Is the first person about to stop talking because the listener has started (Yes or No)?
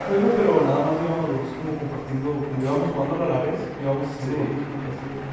No